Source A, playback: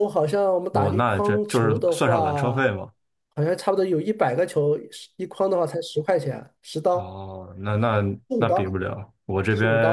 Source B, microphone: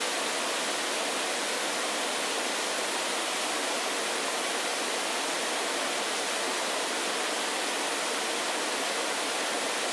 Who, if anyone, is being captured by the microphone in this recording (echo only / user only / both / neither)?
neither